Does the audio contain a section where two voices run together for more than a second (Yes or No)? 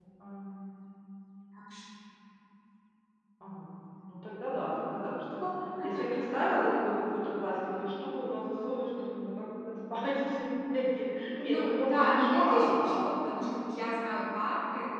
Yes